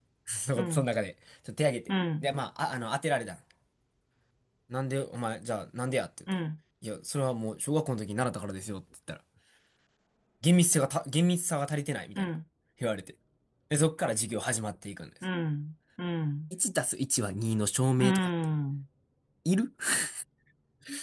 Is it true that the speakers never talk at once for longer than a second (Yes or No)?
Yes